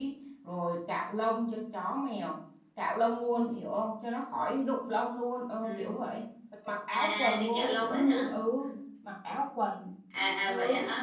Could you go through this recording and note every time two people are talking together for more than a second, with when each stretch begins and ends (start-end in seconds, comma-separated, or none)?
7.0-8.3